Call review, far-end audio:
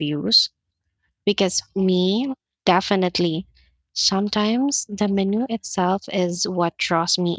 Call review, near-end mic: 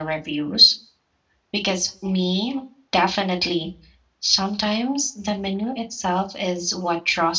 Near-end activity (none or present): none